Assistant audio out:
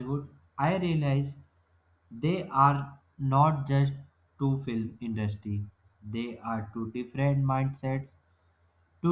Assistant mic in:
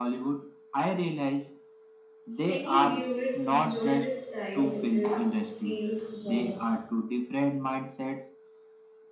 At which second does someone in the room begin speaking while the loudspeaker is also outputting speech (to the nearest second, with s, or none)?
2 s